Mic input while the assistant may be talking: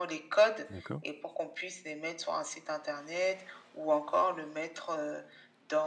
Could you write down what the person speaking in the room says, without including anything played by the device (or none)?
D'accord.